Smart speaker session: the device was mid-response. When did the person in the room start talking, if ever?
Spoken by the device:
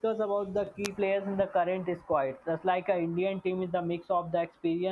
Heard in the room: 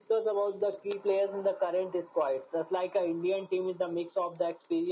none

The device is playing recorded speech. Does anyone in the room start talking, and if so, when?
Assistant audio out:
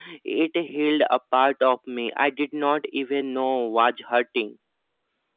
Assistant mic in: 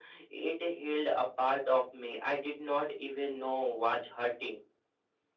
none

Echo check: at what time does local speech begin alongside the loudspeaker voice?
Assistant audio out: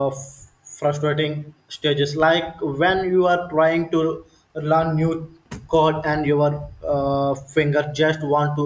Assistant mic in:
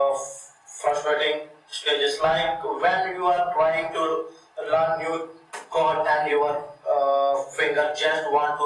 none

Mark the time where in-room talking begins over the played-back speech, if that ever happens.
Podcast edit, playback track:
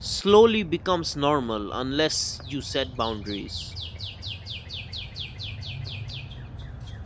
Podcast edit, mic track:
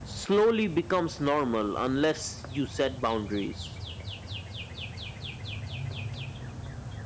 none

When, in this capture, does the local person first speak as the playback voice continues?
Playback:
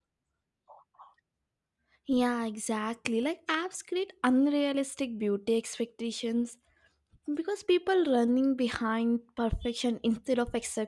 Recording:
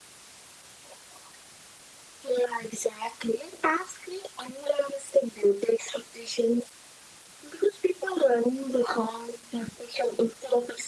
none

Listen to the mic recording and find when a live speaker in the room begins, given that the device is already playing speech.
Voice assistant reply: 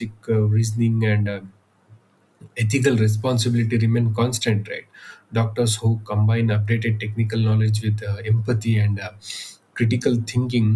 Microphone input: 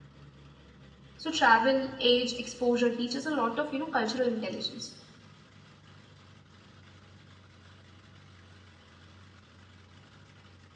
1.2 s

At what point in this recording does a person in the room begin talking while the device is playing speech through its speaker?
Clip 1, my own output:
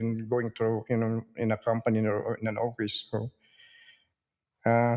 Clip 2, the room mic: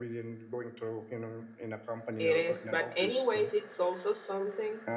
2.2 s

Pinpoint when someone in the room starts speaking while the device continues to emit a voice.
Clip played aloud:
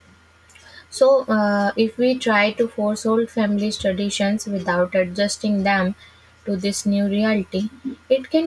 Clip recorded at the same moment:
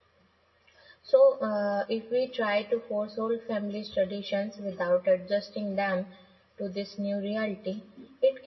none

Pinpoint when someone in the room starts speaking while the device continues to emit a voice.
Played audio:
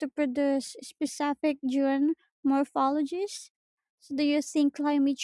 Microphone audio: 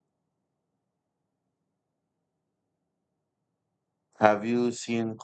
4.2 s

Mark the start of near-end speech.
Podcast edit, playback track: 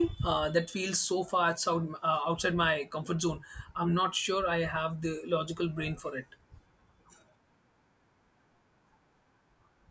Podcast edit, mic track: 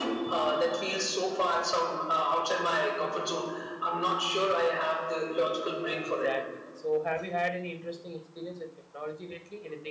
6.0 s

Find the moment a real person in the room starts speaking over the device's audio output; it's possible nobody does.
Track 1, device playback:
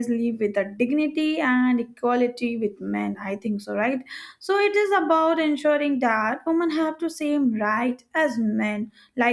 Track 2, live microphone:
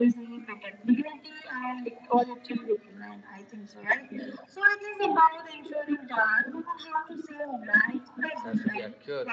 8.4 s

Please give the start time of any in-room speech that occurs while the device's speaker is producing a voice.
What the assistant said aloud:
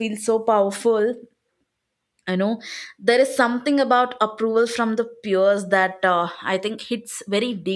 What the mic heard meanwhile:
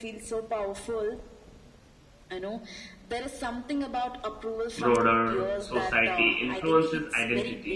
4.8 s

